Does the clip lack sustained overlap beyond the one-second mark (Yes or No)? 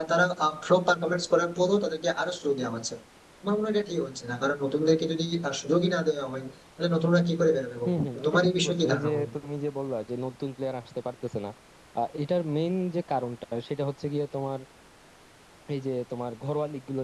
No